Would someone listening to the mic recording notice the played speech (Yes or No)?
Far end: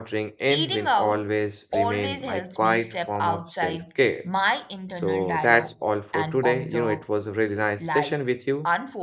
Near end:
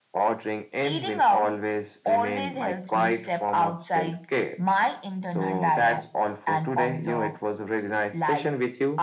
Yes